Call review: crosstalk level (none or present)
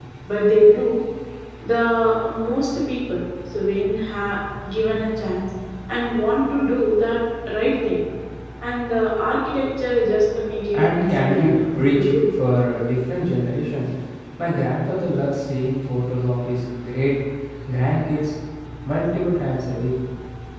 present